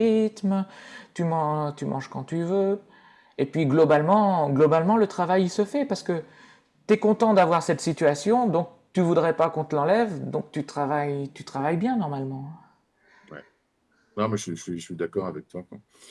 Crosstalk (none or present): none